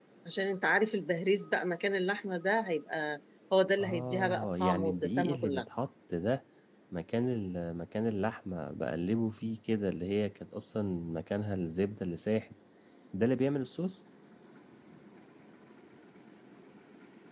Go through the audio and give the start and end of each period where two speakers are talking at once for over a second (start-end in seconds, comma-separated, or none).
3.8-5.7